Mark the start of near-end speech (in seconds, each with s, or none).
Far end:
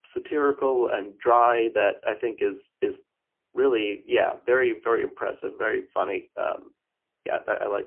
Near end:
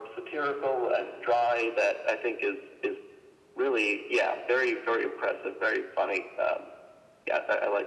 none